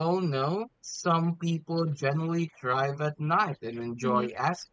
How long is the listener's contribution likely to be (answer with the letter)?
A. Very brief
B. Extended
A